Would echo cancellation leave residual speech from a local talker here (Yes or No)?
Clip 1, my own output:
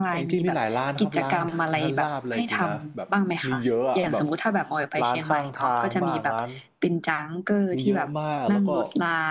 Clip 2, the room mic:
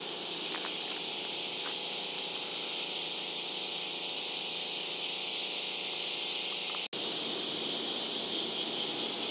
No